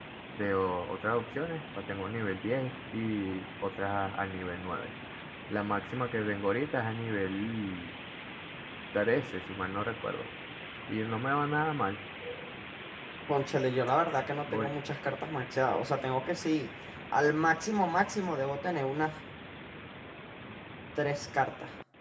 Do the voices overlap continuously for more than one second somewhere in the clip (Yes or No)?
No